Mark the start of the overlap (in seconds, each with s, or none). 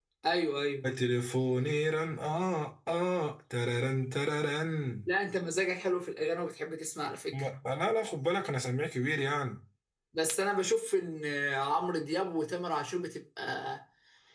none